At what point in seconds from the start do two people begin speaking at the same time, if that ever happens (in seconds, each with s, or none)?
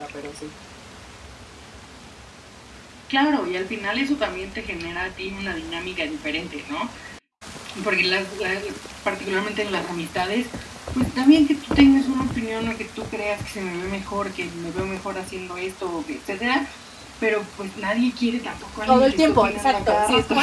18.9 s